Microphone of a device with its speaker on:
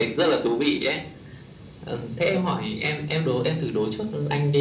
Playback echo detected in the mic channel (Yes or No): Yes